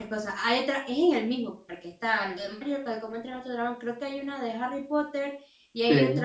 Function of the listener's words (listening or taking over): listening